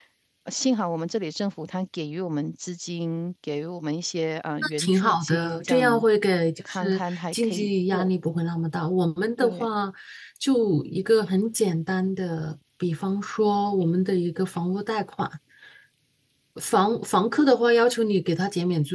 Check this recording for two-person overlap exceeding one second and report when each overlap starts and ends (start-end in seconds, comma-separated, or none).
4.8-6.0, 6.6-8.1